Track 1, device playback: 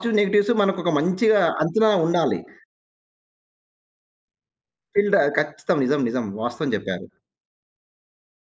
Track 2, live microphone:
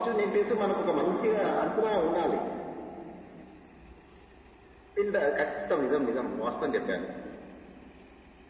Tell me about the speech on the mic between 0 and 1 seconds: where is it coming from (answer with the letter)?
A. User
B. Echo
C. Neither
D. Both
B